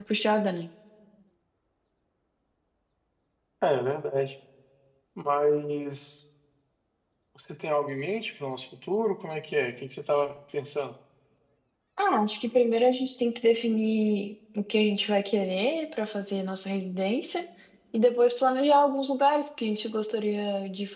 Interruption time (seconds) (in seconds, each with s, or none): none